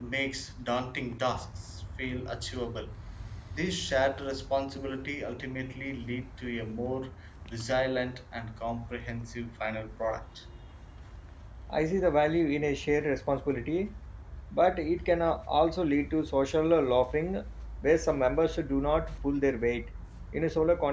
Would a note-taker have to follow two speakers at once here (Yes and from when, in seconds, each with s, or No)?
No